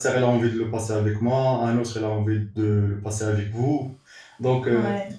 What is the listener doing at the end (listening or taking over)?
listening